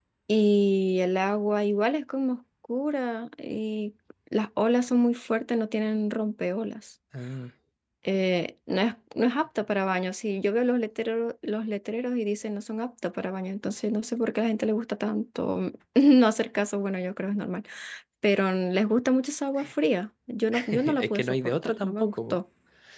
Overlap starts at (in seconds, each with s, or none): 20.7 s